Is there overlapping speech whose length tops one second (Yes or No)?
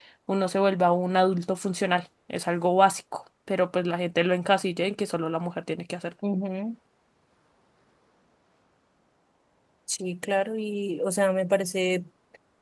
No